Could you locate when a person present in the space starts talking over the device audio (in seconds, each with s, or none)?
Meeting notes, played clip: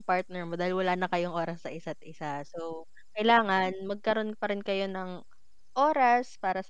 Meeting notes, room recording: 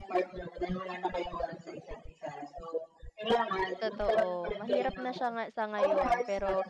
3.8 s